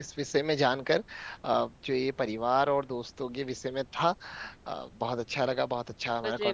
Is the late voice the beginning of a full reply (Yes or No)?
No